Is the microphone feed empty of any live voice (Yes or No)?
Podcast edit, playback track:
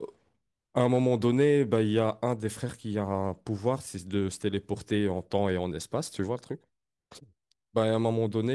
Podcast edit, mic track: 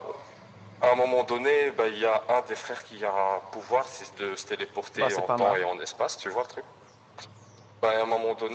No